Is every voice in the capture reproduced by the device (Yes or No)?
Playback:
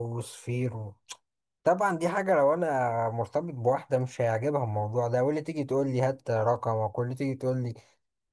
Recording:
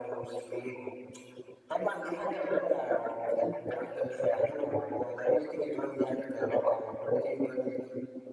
Yes